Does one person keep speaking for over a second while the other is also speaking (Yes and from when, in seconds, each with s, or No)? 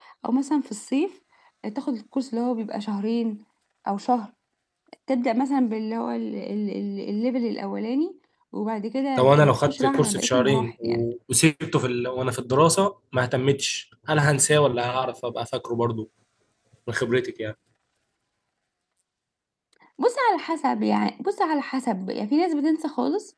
Yes, from 9.2 s